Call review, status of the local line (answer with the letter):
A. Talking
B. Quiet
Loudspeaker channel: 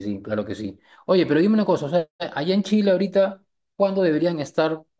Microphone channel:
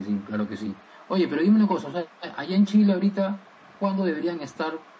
B